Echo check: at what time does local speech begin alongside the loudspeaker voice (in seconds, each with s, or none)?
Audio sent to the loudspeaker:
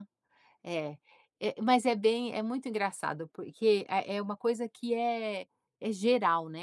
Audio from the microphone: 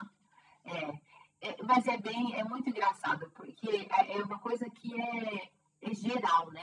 none